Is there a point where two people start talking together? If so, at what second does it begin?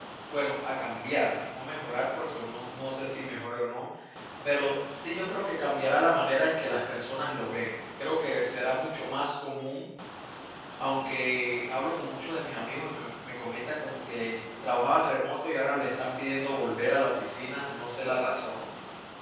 none

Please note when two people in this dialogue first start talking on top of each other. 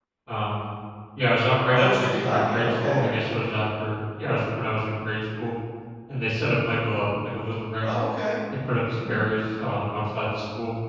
1.7 s

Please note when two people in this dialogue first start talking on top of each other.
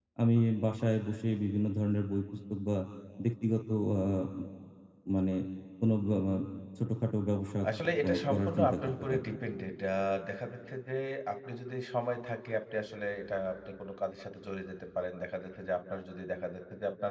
8.1 s

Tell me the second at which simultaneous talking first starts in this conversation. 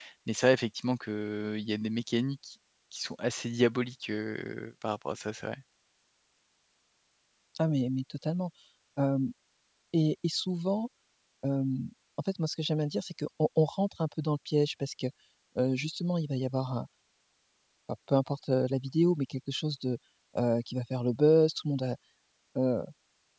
none

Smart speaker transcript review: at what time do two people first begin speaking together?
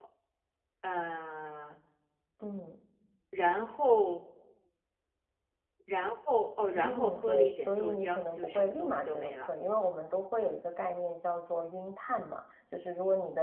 6.8 s

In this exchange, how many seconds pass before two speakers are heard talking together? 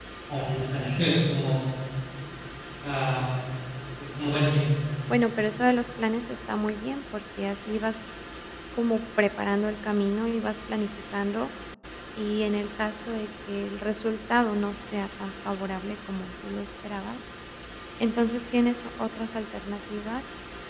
none

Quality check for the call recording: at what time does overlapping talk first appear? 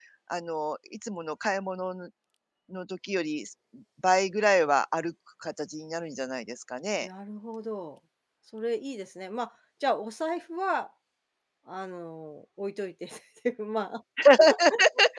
none

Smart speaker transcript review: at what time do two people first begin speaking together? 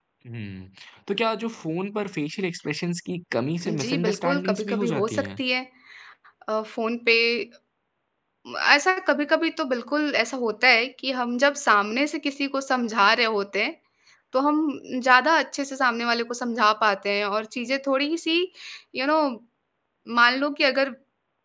3.6 s

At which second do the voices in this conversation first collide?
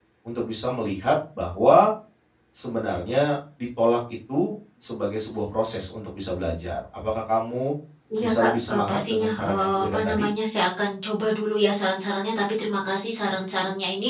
8.2 s

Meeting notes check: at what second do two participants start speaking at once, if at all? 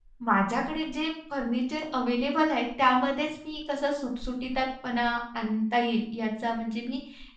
none

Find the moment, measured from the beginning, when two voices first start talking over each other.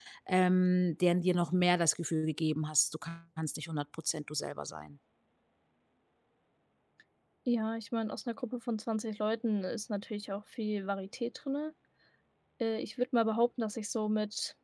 none

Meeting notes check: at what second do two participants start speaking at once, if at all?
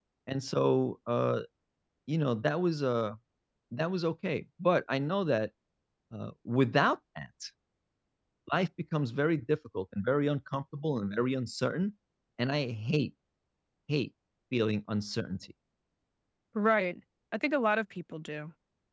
none

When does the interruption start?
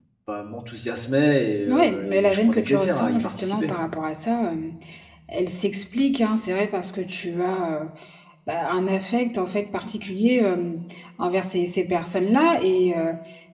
1.7 s

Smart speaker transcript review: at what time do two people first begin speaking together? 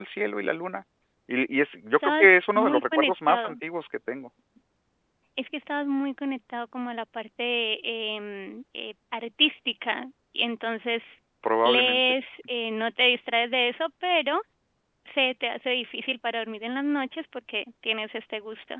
1.9 s

